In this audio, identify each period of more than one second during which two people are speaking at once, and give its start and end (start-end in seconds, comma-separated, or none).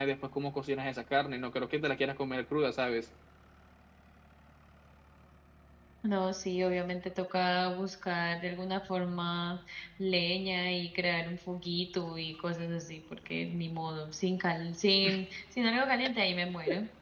none